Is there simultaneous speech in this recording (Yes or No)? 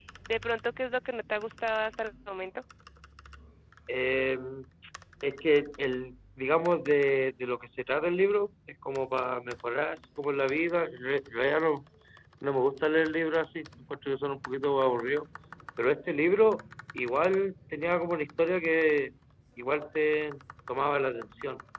No